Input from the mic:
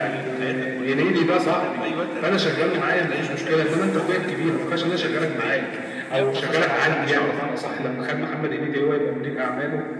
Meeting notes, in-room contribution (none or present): present